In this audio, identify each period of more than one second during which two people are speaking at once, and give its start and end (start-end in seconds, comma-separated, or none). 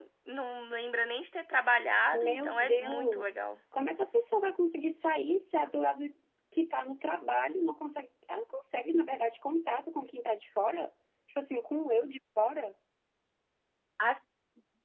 2.1-3.4